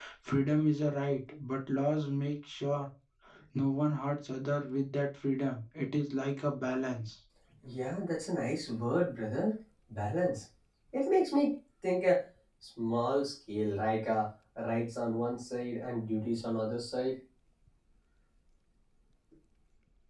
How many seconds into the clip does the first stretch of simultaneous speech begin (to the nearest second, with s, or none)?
none